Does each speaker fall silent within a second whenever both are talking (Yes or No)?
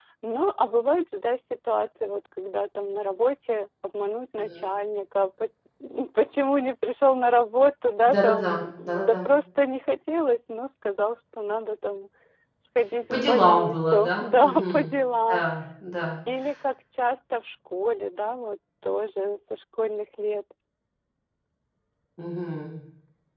No